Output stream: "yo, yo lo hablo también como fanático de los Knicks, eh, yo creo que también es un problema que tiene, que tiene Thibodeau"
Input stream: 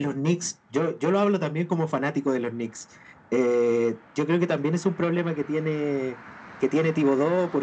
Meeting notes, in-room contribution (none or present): none